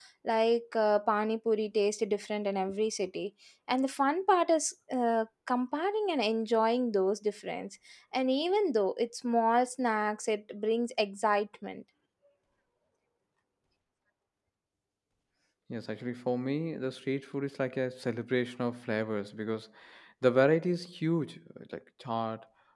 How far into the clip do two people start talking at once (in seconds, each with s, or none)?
none